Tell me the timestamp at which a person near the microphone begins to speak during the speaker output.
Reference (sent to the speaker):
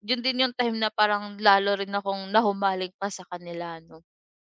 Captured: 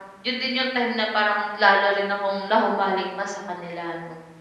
none

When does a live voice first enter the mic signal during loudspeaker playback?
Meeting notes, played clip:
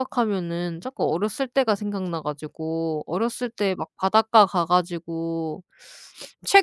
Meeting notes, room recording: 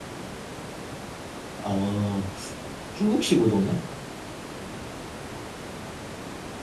1.6 s

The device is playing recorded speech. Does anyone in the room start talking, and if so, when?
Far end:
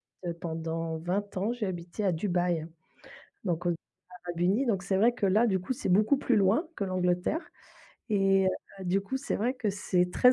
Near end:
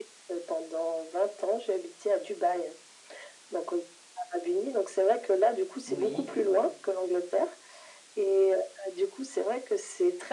5.9 s

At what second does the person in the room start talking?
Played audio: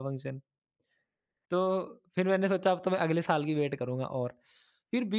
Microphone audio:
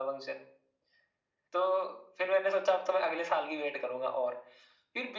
none

